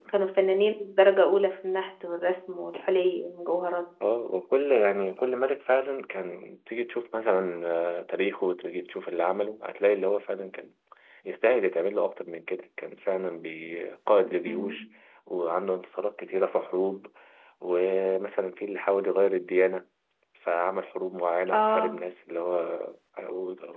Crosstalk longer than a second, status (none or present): none